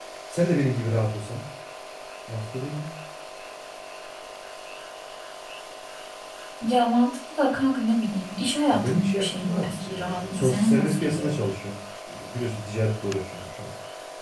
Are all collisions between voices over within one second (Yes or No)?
No